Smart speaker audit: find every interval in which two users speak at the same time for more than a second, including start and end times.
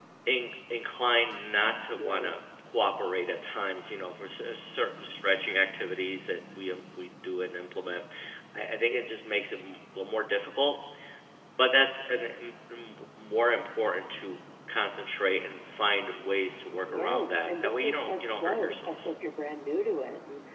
16.9-19.1

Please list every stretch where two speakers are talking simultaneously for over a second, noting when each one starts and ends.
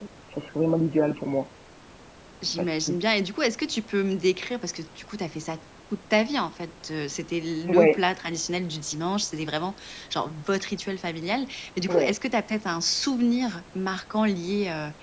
none

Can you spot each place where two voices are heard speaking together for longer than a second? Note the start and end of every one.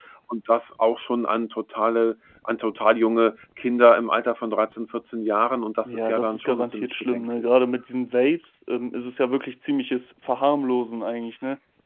5.9-7.5

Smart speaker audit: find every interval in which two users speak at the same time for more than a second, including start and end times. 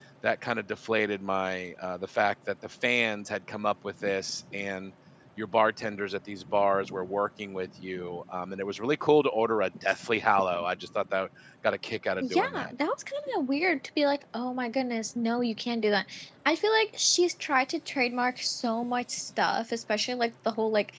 none

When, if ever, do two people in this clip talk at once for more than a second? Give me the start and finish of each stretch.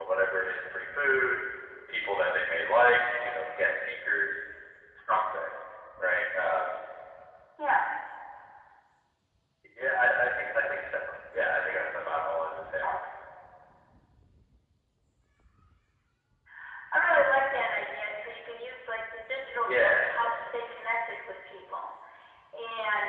none

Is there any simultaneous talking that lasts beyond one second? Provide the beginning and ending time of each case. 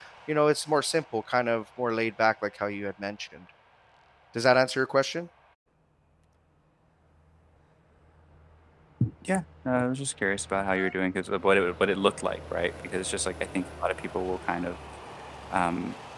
none

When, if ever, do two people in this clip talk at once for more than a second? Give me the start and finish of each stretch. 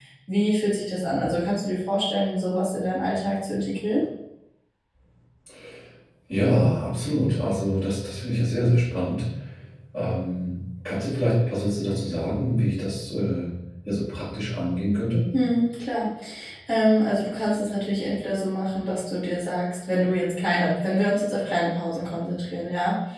none

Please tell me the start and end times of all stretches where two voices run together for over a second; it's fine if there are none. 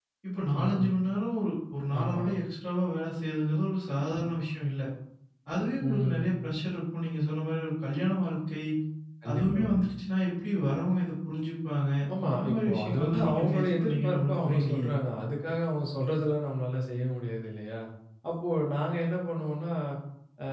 12.3-14.9

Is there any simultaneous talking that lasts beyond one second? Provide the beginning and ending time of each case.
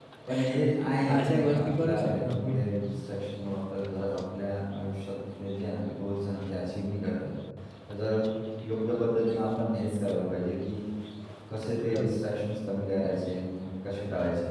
1.1-2.6

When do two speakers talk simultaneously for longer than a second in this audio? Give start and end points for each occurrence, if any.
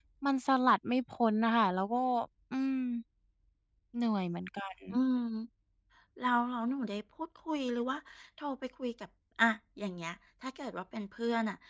none

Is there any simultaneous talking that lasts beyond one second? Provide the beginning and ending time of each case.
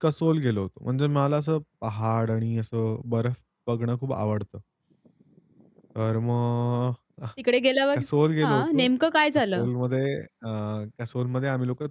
none

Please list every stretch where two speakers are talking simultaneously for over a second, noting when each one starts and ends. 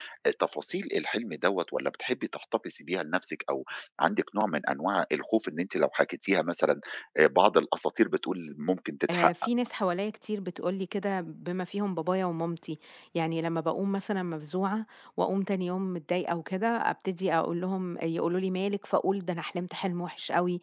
none

